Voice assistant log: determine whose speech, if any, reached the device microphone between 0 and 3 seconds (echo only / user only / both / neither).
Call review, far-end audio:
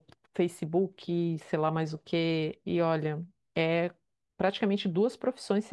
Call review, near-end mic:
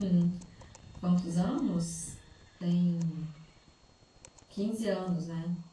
user only